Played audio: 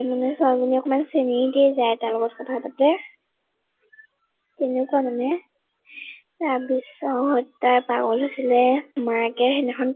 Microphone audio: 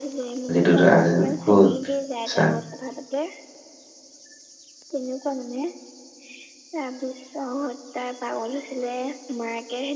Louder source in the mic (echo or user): user